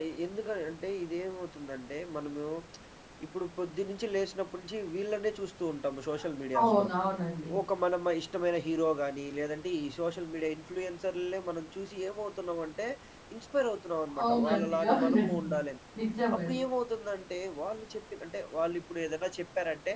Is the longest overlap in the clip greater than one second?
Yes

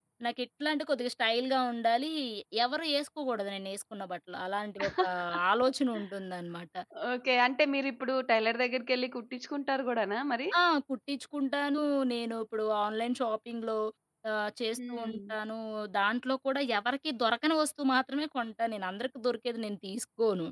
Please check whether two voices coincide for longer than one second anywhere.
No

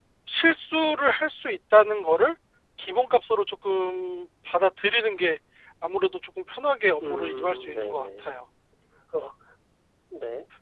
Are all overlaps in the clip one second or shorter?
No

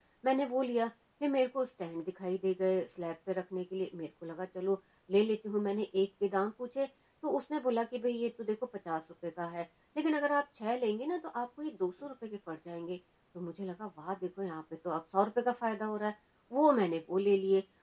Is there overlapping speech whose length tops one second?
No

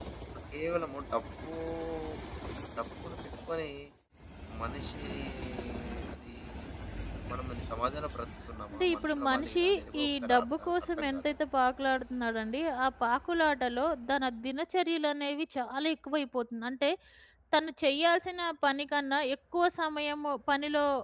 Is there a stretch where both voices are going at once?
Yes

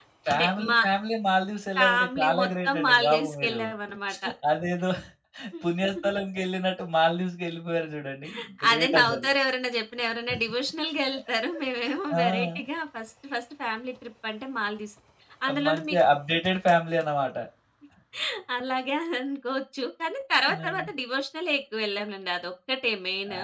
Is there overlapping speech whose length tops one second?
Yes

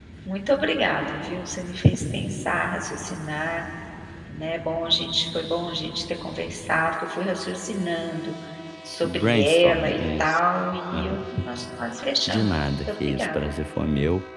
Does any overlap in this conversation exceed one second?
Yes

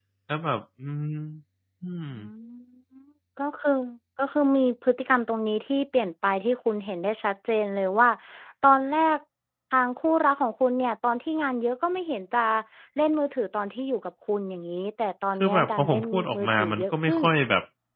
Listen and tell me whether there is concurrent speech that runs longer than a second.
Yes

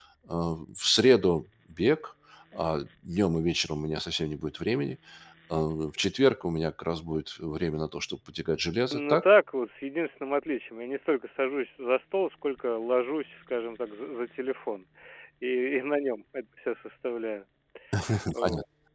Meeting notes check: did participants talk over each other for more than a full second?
No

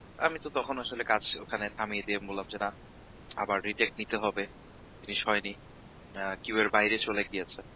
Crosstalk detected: No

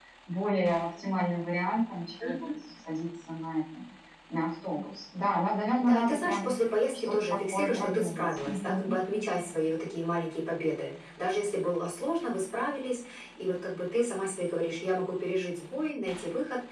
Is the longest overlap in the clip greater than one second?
Yes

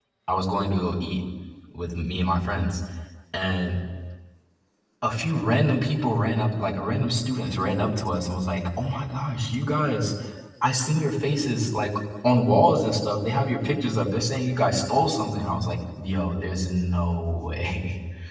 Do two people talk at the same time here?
No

